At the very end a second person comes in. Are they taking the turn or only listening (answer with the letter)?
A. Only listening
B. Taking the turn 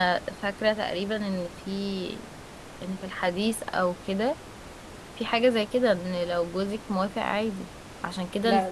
A